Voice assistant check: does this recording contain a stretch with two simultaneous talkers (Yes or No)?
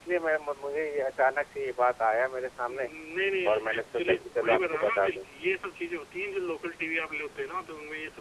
Yes